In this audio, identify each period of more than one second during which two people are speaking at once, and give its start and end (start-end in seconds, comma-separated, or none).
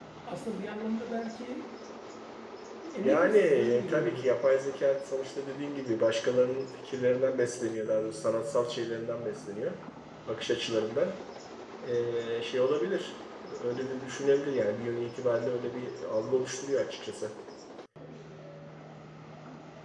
3.0-4.3